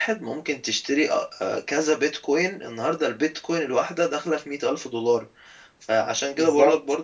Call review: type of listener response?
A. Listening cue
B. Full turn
A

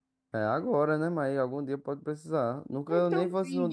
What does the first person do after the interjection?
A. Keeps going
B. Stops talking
B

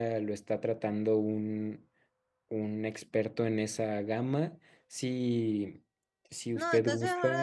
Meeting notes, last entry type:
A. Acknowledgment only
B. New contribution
B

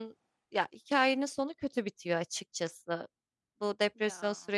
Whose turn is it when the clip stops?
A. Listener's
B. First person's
B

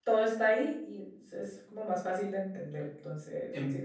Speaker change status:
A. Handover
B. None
A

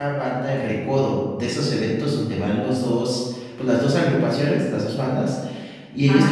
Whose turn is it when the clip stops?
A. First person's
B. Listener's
A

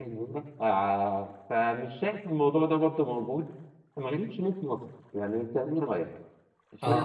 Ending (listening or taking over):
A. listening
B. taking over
B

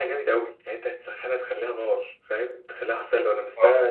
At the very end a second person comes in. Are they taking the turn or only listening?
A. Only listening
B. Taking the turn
A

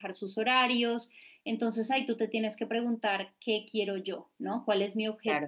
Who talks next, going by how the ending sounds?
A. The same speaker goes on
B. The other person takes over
B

